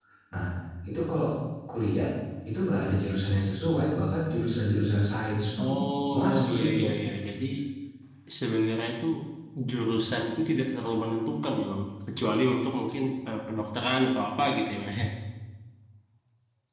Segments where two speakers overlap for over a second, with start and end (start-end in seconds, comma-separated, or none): 5.6-6.9